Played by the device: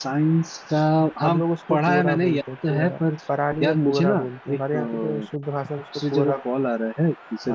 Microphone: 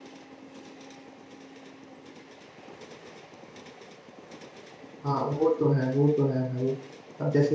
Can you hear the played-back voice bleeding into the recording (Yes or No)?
No